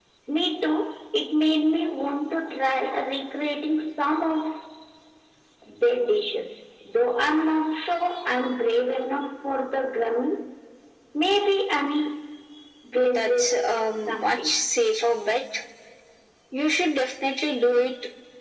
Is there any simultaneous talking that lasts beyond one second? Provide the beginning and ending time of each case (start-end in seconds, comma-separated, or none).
13.0-14.6